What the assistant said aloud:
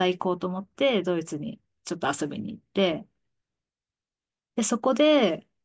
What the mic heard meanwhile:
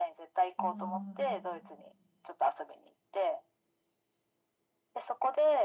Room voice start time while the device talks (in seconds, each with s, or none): 0.6 s